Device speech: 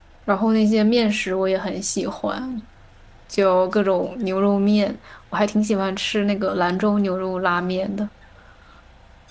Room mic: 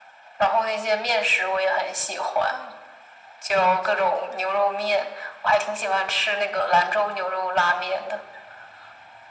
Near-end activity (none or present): none